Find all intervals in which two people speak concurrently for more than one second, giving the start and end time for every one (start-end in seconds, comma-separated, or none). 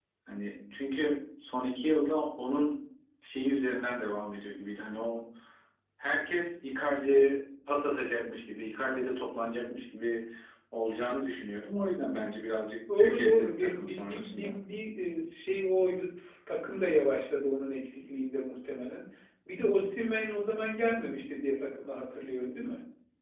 13.0-14.6